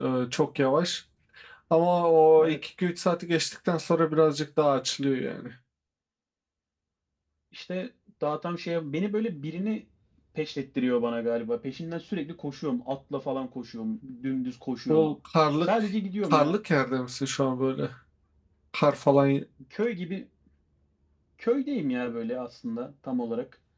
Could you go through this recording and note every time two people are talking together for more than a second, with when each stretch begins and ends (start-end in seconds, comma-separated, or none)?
none